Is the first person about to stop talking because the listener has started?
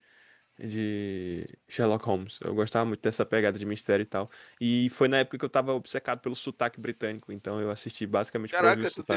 Yes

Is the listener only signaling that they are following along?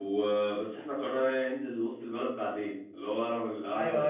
No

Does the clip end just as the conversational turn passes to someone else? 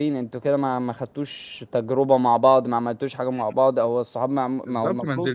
Yes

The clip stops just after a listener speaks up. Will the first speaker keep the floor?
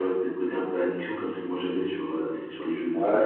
No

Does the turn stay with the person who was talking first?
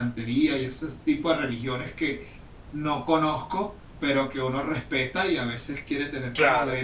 Yes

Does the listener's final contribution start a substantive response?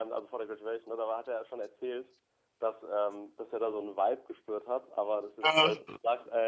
No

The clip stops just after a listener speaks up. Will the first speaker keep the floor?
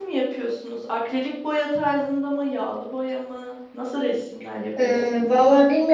No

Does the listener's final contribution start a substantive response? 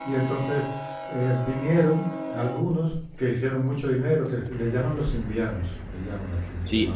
Yes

